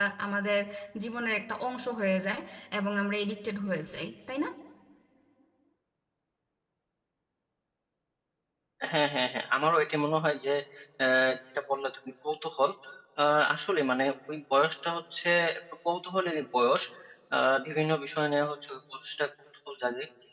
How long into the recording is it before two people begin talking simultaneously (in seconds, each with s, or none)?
none